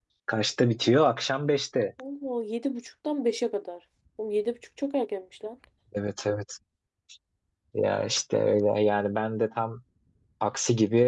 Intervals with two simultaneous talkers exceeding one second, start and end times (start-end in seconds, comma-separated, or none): none